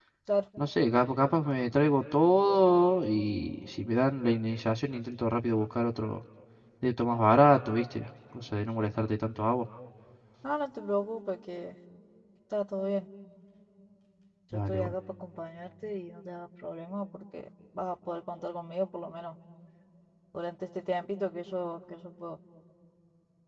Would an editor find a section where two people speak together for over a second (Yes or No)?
No